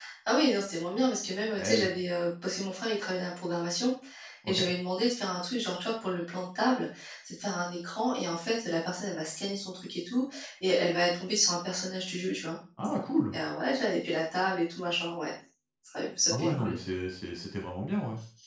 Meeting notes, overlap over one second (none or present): none